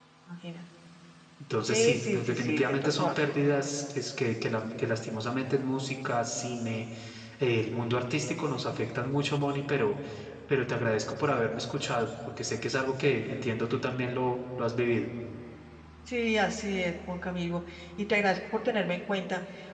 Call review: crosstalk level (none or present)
present